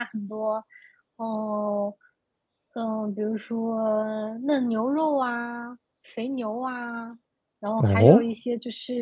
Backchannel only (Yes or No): Yes